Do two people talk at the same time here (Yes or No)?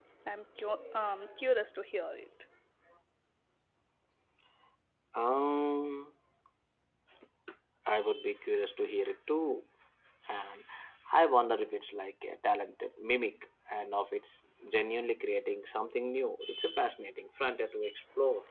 No